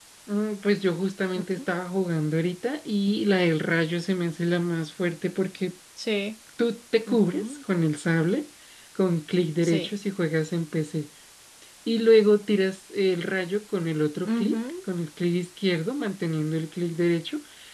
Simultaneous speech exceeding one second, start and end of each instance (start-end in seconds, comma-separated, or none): none